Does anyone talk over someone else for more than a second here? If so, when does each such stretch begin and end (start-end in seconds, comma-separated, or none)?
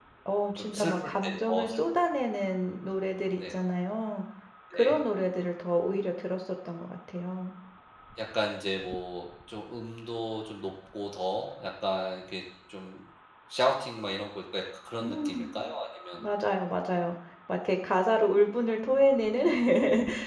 0.6-1.8